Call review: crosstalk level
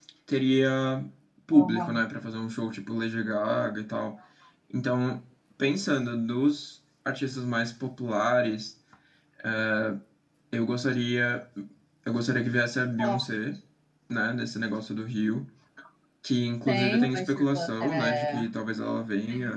present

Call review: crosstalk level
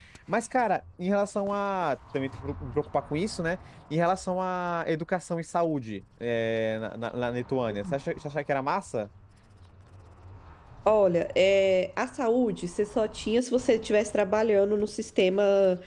none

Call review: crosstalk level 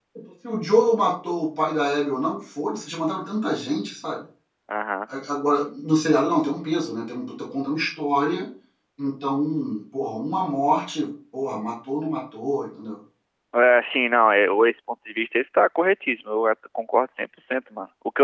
none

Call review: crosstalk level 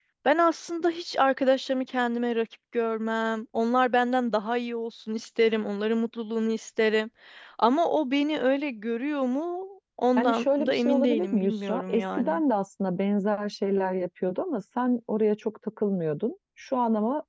present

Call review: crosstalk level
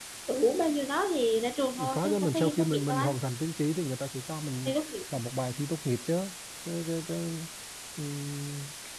present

